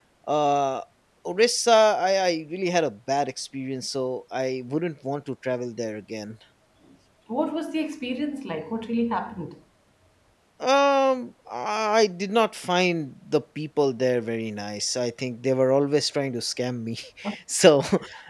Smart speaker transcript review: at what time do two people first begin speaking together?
none

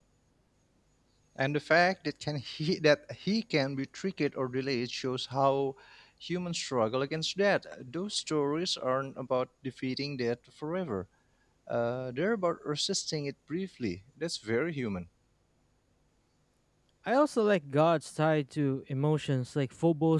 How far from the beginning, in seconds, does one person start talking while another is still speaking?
none

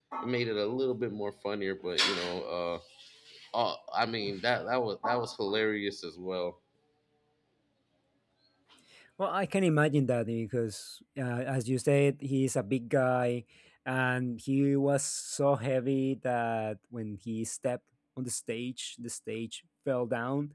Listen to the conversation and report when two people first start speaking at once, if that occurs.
none

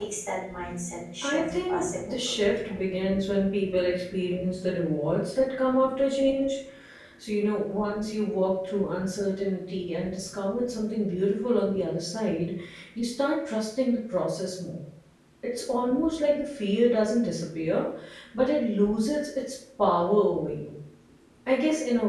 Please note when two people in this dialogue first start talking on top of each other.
1 s

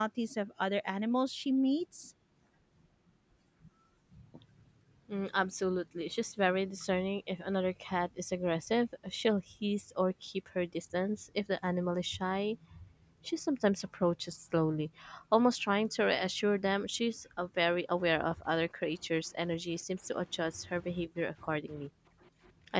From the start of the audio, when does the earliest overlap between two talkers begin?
none

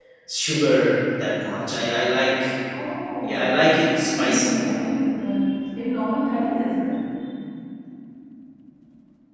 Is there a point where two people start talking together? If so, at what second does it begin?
3 s

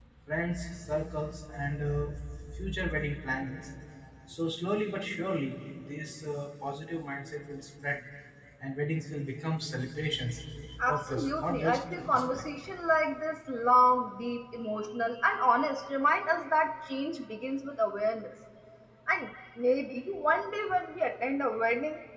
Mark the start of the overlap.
11 s

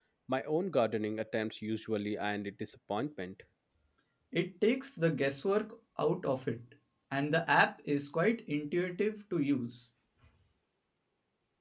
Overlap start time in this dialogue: none

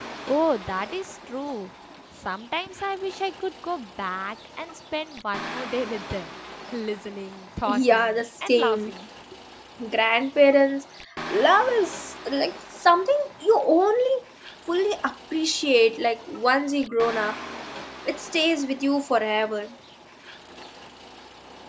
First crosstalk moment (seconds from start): 8 s

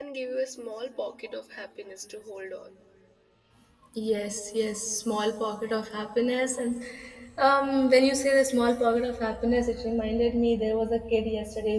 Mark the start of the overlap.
none

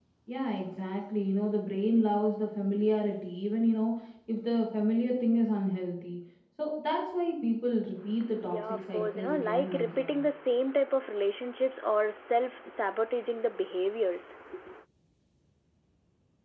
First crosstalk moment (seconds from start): 8 s

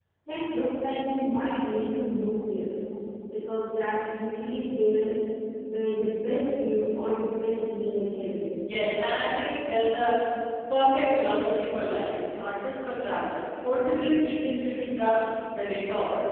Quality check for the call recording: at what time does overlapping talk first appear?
none

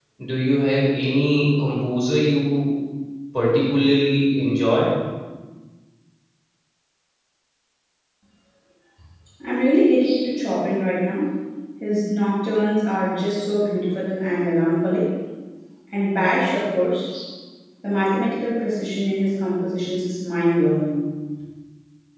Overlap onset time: none

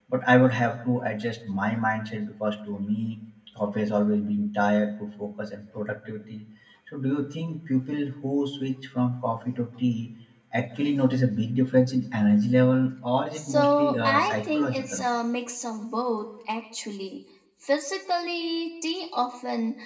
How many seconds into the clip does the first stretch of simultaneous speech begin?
13 s

